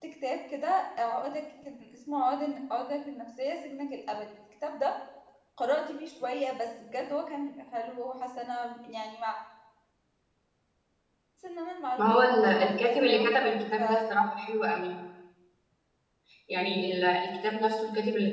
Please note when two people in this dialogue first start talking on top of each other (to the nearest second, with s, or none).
12 s